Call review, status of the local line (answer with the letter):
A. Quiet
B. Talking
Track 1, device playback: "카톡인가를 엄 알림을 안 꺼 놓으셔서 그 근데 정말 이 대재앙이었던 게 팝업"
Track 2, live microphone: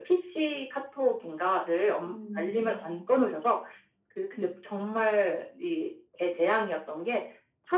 B